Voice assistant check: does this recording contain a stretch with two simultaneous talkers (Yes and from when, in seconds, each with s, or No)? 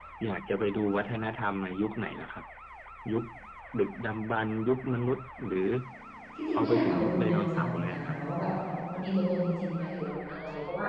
Yes, from 6.5 s